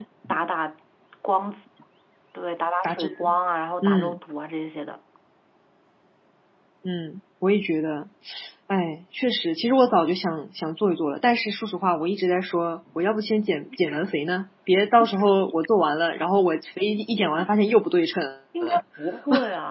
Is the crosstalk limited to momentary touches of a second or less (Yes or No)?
Yes